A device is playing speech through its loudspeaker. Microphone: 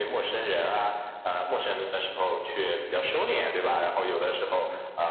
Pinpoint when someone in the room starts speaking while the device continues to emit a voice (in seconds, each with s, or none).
none